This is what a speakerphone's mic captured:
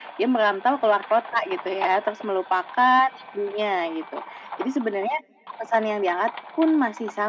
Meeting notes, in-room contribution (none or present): none